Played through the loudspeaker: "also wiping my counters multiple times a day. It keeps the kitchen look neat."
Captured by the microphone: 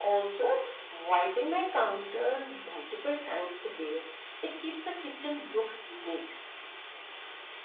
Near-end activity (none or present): none